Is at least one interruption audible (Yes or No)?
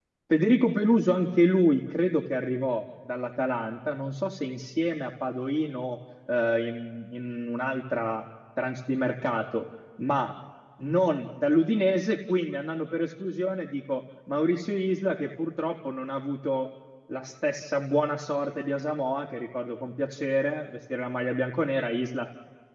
No